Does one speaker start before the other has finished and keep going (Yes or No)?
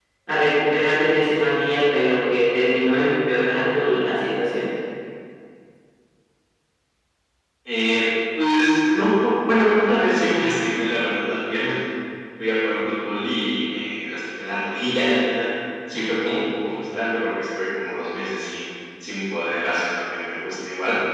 No